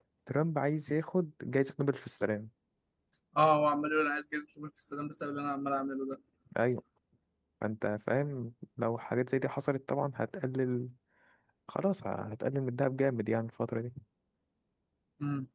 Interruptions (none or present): none